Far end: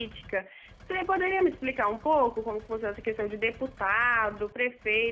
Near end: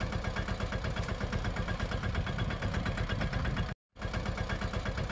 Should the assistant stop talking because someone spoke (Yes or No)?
No